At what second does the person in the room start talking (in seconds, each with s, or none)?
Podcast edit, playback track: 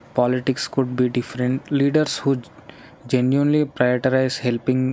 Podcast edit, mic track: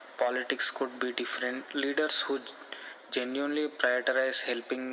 none